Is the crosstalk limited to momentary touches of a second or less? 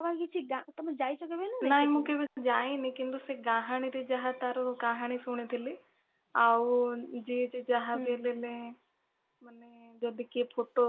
Yes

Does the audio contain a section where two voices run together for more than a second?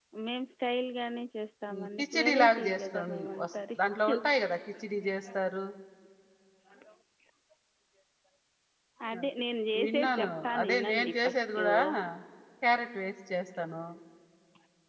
Yes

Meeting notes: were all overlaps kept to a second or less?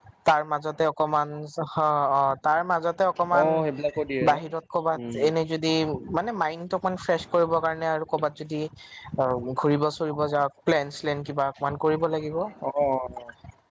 Yes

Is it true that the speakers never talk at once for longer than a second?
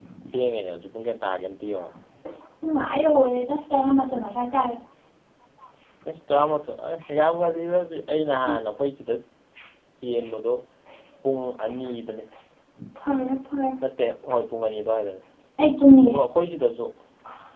Yes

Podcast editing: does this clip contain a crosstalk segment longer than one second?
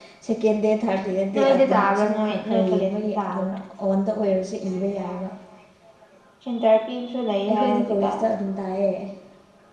Yes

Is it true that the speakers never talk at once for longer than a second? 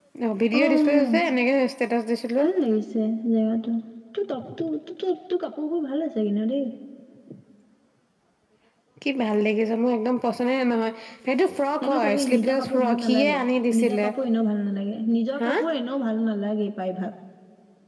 No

